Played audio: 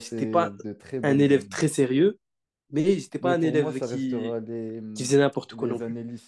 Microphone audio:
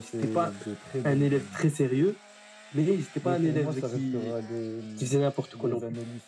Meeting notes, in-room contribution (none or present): none